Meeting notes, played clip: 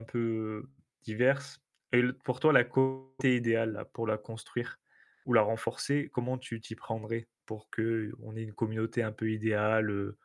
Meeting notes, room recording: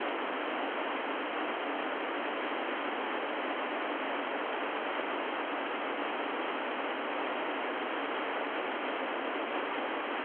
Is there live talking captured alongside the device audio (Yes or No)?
No